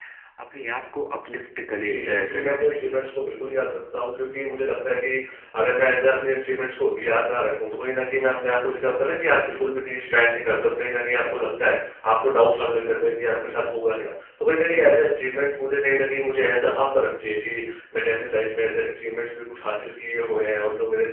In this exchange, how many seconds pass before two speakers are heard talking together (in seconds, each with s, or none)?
1.7 s